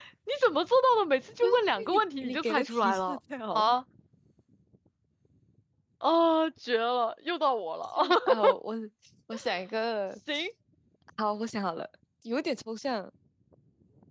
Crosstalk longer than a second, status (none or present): present